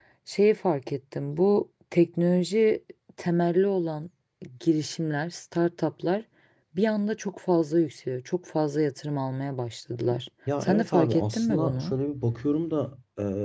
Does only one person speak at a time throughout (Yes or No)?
No